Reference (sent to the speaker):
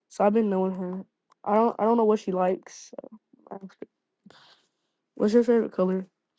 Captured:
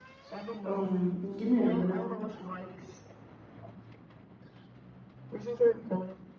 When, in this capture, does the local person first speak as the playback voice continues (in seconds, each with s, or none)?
0.7 s